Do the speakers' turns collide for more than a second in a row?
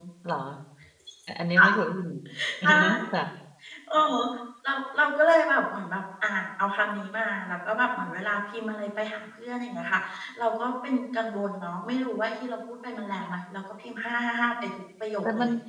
No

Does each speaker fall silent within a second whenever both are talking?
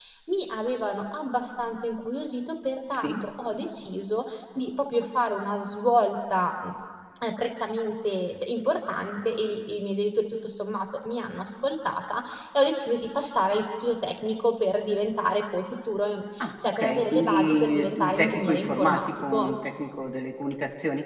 No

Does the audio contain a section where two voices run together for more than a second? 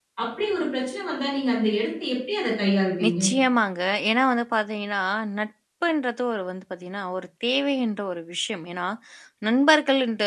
No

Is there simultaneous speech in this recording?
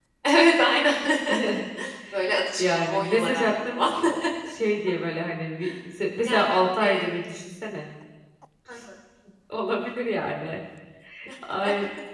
Yes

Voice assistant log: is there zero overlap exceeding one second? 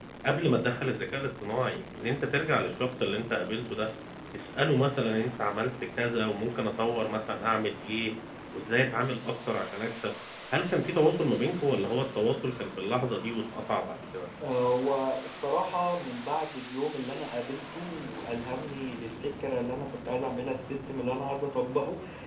Yes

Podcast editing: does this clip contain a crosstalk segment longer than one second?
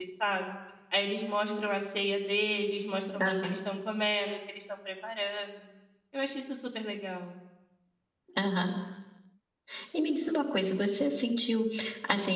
No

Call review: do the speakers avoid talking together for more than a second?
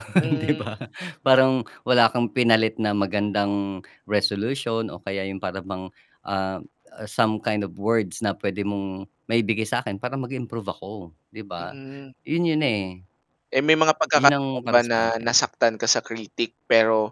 No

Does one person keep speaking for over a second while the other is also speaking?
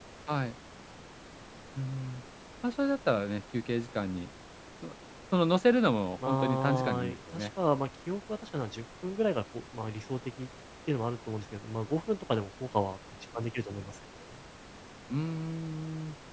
Yes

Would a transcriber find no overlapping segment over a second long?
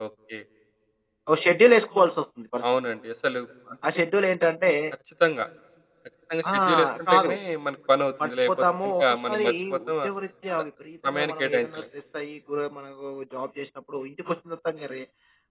No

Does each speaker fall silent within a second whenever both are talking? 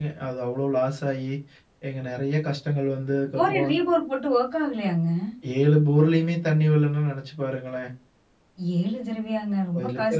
Yes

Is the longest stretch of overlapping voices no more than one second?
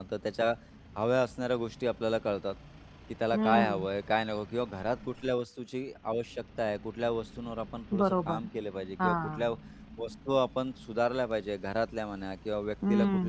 Yes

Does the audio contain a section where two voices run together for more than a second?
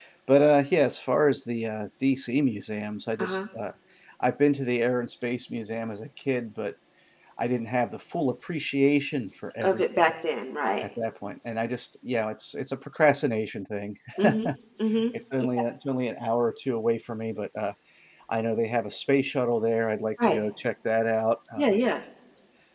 No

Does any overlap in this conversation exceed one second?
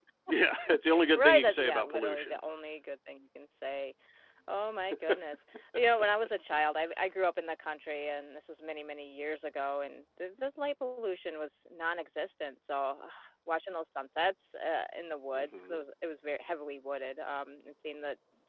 Yes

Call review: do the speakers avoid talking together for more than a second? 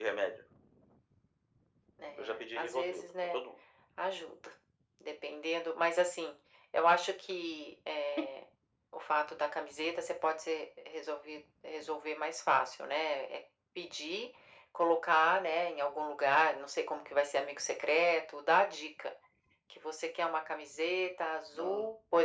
No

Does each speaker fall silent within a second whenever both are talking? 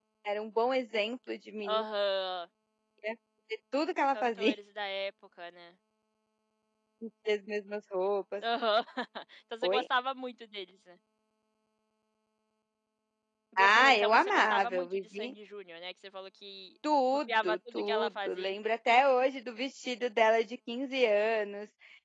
No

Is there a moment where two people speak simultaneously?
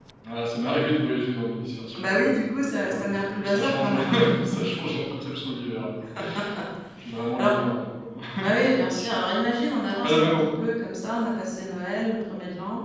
Yes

